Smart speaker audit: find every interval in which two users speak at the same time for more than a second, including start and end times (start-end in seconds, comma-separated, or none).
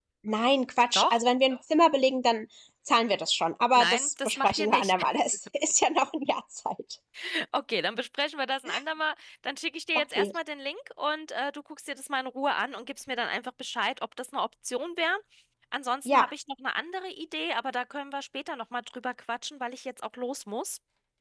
3.8-5.0